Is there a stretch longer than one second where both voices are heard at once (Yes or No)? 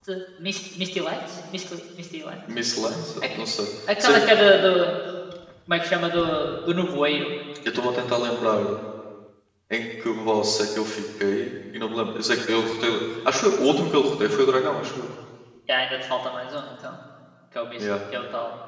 No